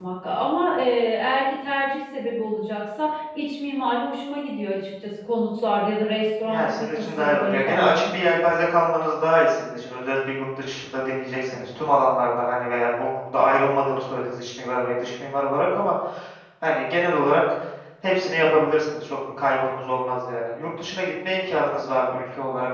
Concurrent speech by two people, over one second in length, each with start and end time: 6.5-8.0

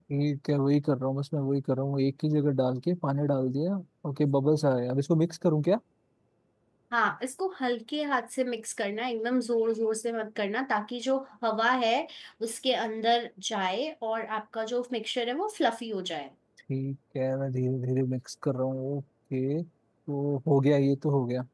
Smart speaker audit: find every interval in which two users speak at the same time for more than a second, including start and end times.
none

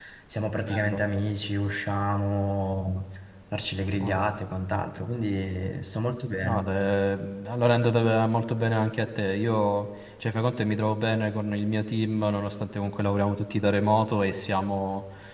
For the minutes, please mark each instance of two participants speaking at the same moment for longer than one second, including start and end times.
none

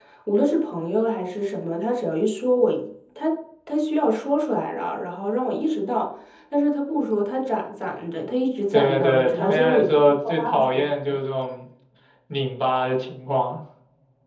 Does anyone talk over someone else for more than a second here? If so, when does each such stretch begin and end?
8.7-10.9

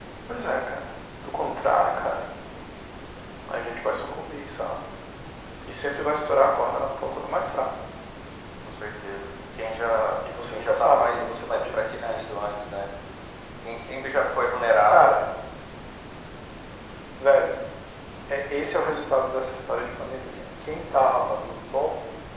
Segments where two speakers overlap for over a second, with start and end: 10.5-12.2

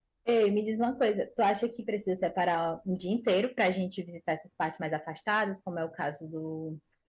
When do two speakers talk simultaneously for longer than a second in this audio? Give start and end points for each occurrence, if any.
none

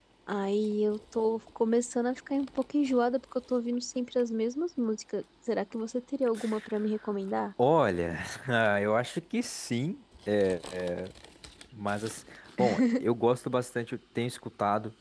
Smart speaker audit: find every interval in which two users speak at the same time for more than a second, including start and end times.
none

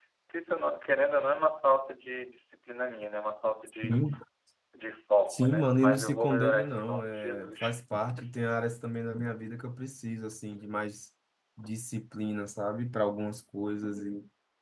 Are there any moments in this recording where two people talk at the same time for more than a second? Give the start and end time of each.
5.3-7.7

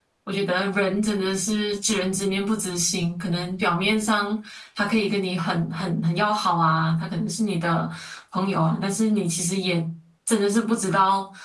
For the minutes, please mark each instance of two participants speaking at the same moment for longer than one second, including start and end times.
none

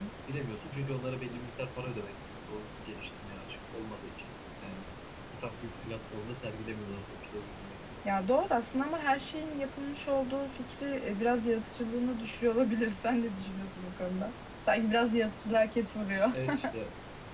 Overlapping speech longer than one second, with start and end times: none

